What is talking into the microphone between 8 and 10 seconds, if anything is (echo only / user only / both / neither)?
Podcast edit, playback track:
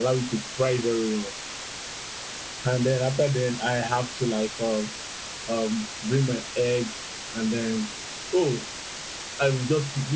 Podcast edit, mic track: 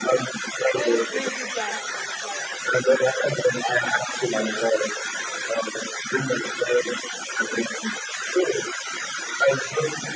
echo only